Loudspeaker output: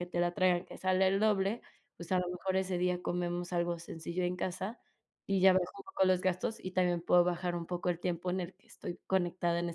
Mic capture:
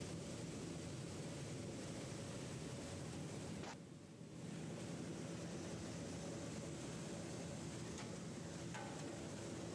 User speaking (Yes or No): No